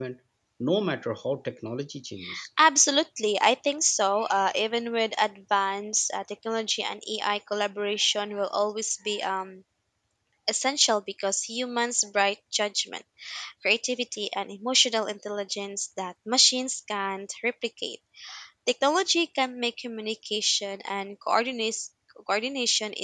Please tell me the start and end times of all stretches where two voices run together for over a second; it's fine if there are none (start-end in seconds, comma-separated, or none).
none